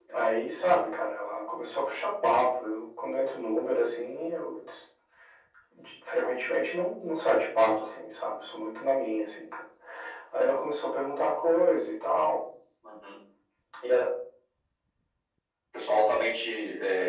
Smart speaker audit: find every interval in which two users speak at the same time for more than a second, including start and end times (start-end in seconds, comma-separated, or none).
none